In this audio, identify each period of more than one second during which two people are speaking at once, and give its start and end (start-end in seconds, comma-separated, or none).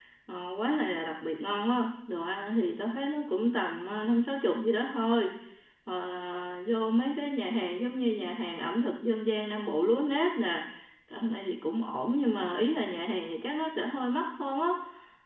none